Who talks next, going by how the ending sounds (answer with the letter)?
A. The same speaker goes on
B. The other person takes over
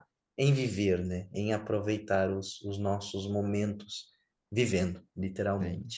B